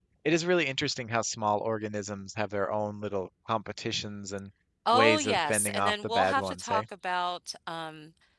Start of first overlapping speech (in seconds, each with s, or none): 4.9 s